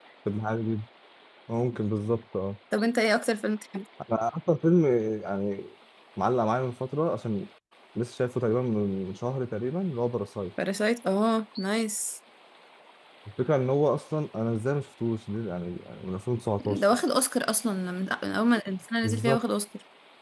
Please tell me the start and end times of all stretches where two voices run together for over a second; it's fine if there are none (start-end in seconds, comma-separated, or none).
none